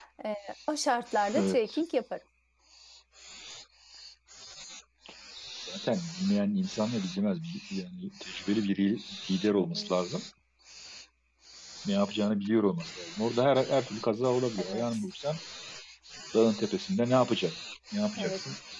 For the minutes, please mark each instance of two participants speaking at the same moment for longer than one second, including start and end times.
none

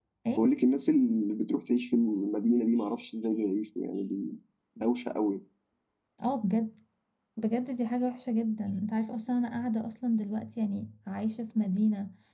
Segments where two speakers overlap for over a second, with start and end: none

